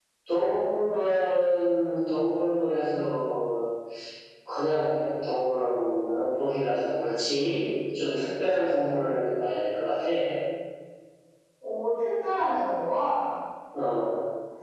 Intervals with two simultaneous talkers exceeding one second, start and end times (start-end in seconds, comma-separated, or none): none